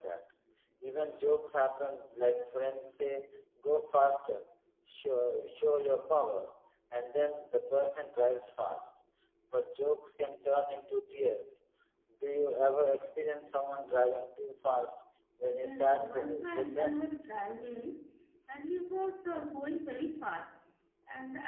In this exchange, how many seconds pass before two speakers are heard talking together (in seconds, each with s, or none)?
15.5 s